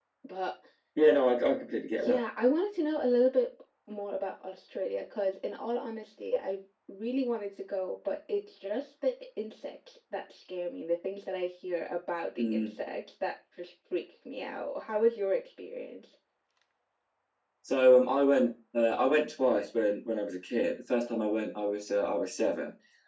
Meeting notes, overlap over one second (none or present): none